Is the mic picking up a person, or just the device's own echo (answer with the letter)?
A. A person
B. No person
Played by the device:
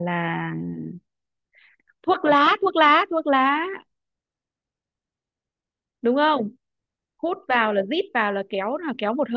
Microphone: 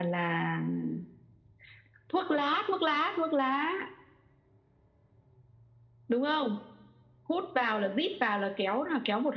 B